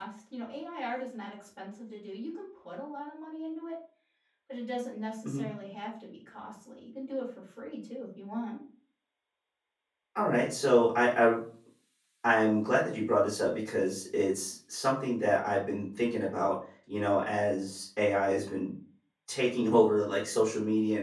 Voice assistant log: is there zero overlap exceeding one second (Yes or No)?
Yes